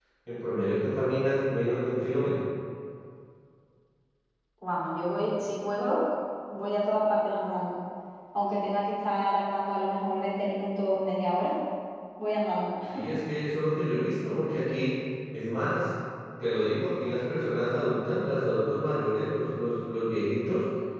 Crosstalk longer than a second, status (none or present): none